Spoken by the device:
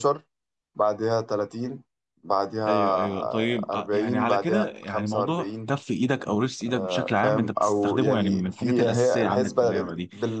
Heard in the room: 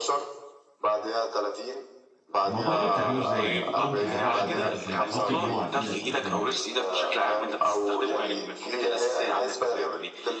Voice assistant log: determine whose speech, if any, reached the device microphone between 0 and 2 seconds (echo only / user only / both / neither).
echo only